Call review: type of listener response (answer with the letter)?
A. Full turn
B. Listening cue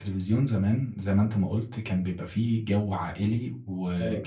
B